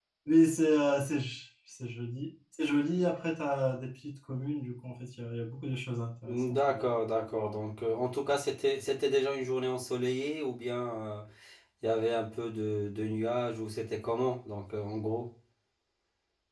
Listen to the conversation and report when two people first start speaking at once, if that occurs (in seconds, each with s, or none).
6.3 s